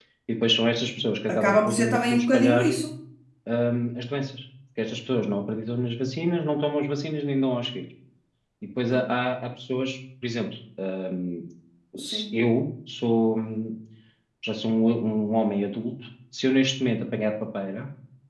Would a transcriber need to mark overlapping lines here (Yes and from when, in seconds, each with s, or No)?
Yes, from 1.3 s